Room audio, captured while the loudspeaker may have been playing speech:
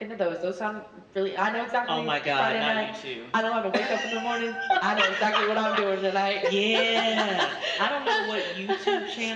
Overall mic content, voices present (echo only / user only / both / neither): echo only